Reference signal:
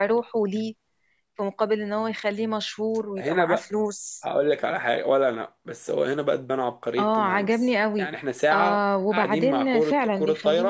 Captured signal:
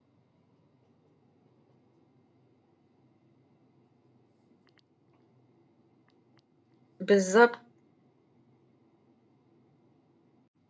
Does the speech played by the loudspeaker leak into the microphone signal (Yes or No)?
No